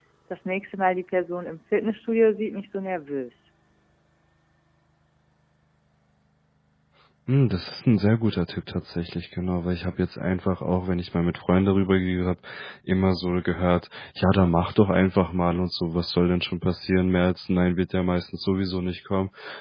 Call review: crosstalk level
none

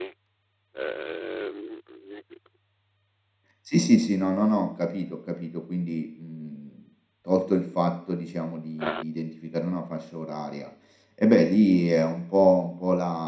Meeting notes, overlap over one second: none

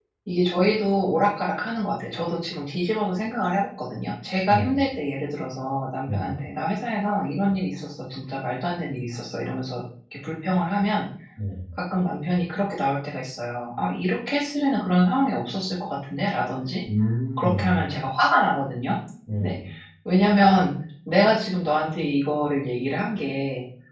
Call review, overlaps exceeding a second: none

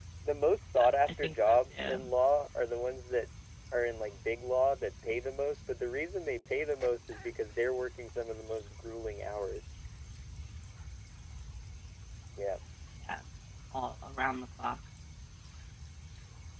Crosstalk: present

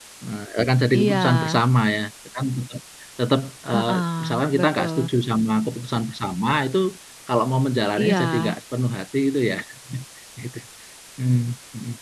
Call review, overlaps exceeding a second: present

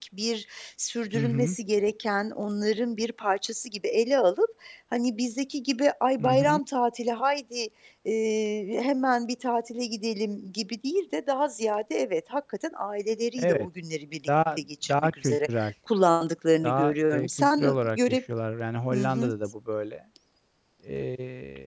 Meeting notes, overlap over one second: present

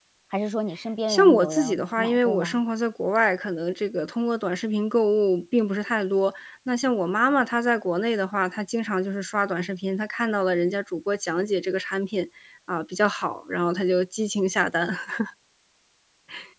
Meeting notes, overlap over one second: present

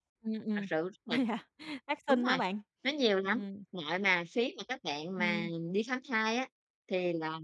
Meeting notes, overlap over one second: none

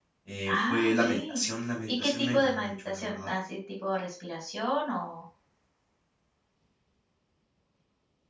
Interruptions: present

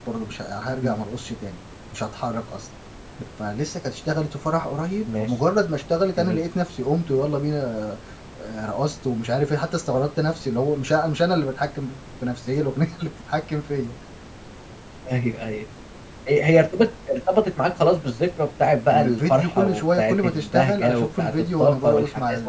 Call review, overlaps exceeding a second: present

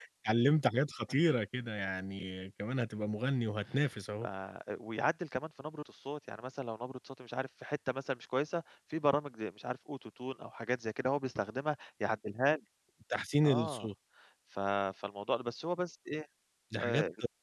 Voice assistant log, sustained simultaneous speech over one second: none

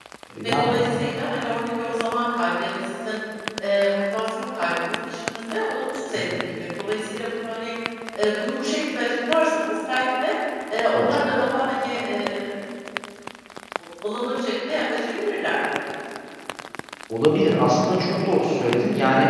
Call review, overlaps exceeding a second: none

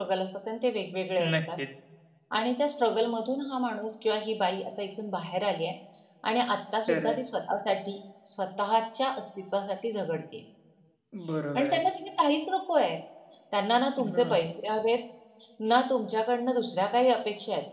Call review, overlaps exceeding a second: none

